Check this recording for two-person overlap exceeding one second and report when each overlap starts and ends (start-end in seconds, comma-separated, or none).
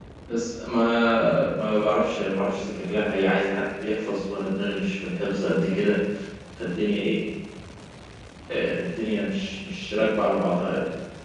none